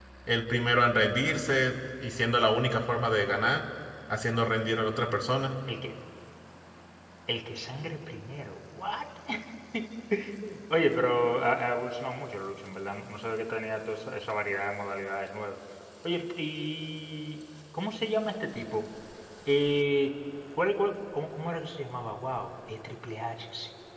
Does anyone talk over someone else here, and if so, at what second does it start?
none

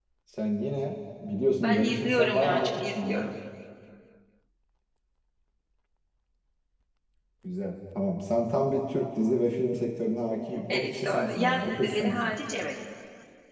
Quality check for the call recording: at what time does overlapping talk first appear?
2 s

